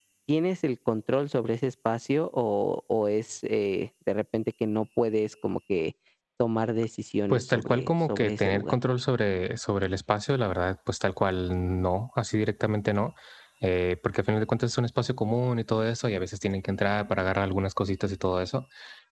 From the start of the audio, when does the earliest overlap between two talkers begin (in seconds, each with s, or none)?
7.3 s